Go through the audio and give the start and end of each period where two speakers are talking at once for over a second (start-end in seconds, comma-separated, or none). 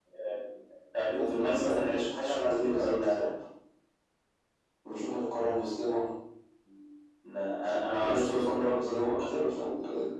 1.1-3.3, 8.0-9.4